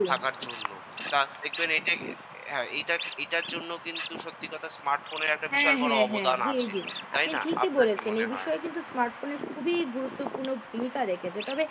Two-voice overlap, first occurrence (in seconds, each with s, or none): 5.5 s